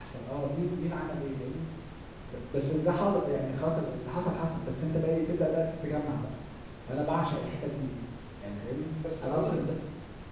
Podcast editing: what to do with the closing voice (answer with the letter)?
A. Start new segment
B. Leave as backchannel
A